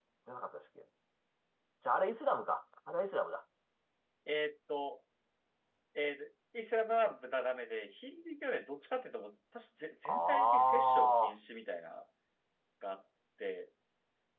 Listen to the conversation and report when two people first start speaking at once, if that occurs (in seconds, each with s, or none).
10.1 s